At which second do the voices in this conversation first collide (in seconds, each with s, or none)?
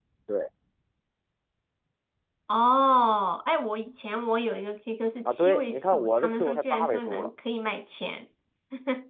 5.2 s